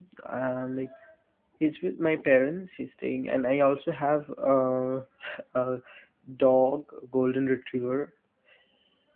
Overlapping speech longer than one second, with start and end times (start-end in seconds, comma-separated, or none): none